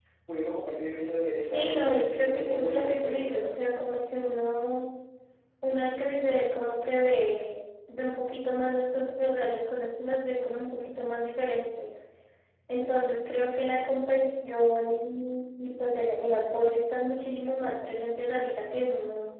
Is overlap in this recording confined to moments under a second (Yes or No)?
No